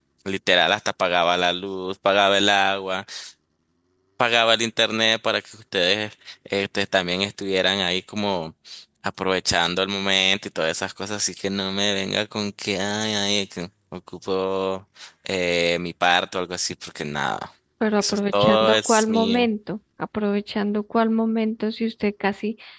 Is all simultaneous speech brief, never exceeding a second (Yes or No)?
No